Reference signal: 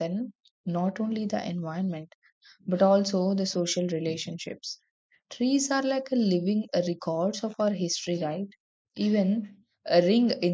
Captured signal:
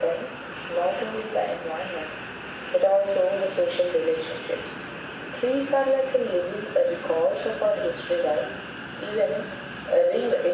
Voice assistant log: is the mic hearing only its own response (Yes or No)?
Yes